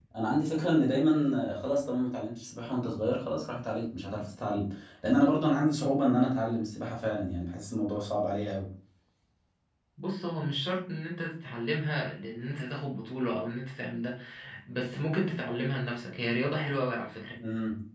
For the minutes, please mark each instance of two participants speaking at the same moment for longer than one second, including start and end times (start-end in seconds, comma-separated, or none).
none